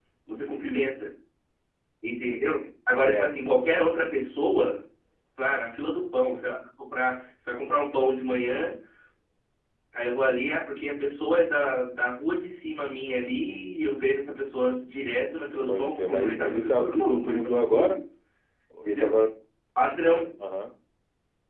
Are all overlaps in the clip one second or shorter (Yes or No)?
No